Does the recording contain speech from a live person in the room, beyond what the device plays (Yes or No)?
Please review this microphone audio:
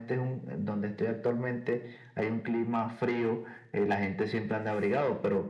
No